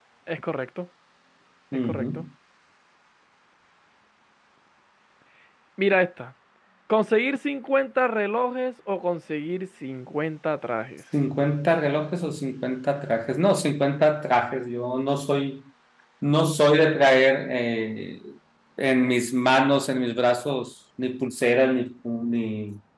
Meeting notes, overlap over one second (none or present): none